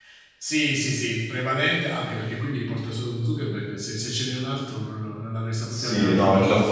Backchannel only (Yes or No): No